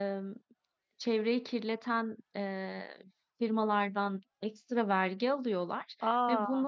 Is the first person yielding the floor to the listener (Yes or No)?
No